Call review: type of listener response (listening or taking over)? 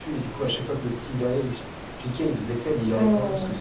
listening